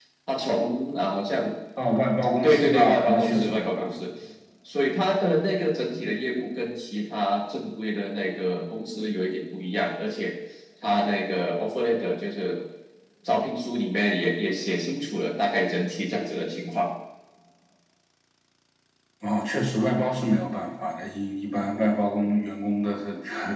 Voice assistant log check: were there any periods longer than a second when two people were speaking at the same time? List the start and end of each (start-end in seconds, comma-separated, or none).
2.4-4.0